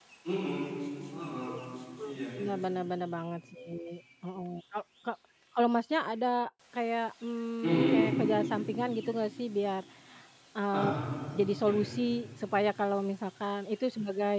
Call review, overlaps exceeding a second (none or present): none